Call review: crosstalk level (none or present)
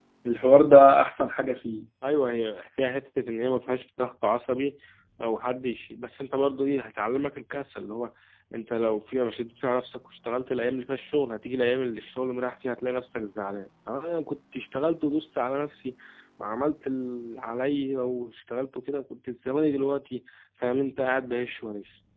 none